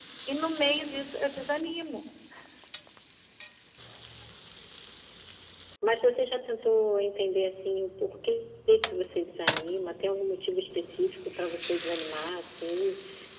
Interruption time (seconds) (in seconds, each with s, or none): none